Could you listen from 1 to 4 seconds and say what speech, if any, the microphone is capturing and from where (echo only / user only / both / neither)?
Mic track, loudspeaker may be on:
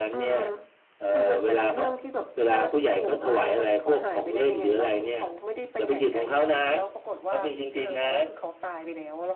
echo only